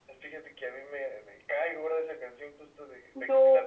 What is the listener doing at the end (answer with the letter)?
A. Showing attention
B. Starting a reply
A